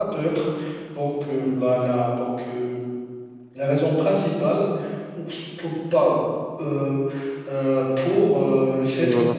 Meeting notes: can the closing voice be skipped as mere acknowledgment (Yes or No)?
Yes